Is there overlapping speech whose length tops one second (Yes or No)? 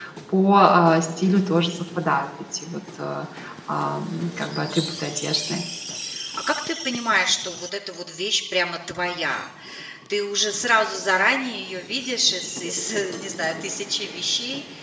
No